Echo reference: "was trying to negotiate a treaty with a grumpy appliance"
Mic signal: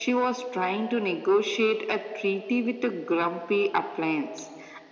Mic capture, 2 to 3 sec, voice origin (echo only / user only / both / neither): echo only